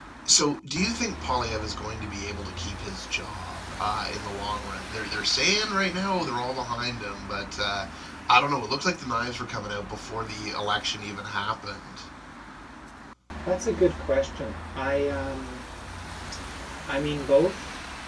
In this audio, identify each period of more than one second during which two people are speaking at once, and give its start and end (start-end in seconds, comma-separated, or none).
none